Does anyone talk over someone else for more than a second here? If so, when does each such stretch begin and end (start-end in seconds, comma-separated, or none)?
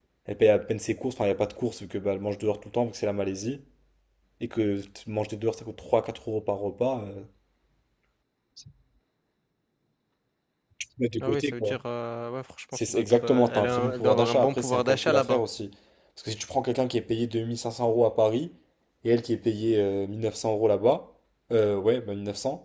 12.7-15.4